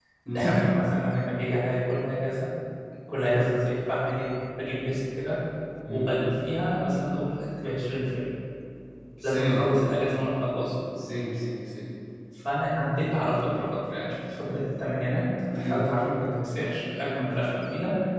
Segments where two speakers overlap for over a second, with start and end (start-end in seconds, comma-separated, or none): none